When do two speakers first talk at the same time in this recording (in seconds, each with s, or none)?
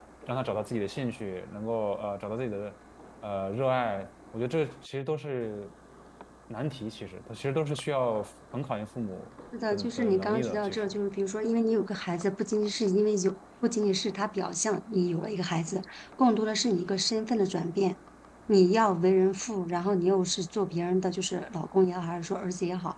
9.5 s